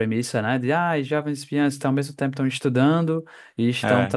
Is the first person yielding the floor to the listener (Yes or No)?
No